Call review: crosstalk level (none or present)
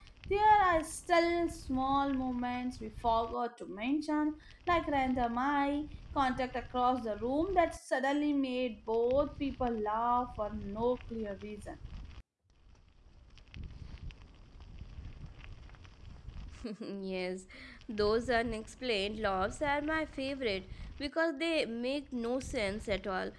none